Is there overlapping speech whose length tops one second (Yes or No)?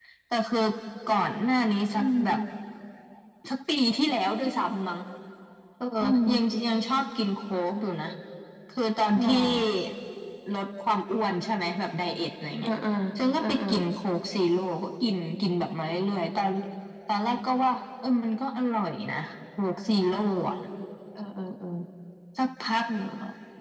No